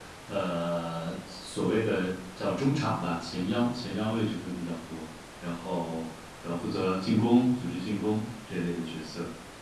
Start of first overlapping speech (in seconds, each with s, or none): none